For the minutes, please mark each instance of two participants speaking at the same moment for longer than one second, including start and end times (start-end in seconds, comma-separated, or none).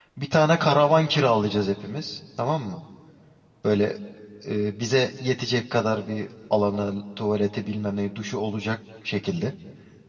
none